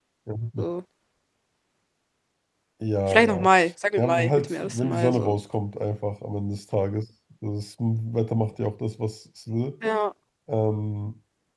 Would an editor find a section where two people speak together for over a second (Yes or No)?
Yes